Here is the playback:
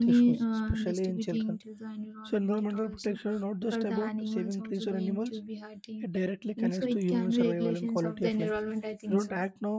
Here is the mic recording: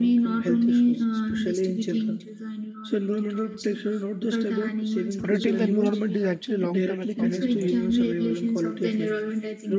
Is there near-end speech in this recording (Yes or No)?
Yes